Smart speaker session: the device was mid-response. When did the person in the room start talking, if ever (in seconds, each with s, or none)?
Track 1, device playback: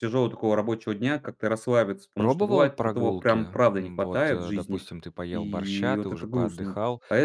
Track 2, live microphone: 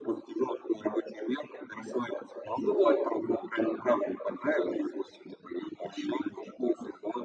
none